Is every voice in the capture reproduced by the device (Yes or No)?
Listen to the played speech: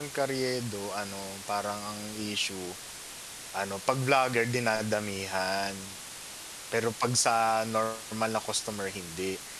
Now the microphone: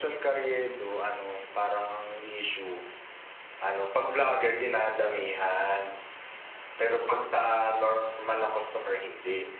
Yes